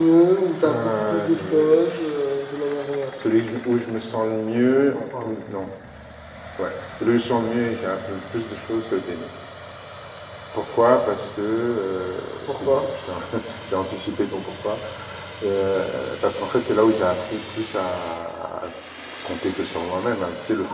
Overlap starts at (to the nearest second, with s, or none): 1 s